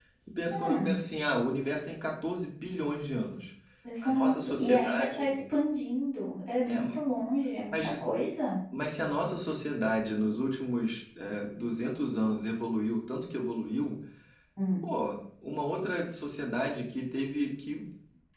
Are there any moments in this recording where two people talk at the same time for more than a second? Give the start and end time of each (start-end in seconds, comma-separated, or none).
4.0-5.3